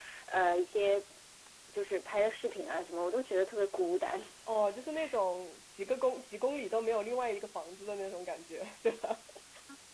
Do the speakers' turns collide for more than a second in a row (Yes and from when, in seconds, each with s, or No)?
No